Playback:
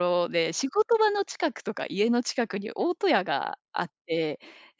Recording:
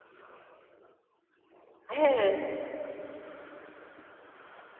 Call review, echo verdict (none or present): none